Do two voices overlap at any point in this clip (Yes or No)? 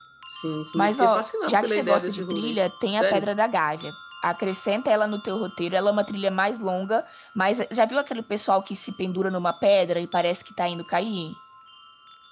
Yes